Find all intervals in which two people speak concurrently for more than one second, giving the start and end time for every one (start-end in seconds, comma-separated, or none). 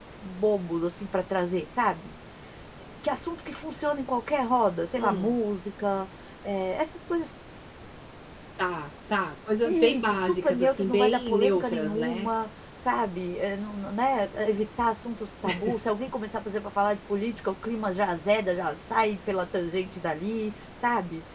9.6-12.3